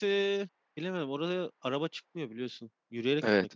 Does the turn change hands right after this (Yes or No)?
Yes